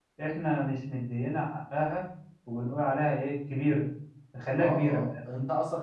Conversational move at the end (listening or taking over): taking over